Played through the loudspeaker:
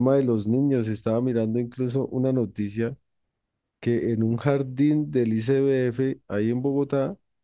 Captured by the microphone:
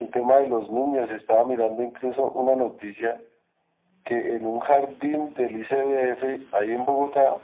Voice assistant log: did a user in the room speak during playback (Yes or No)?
No